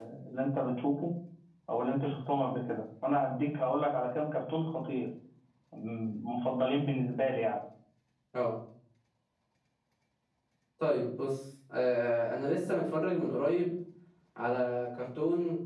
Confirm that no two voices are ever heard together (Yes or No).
Yes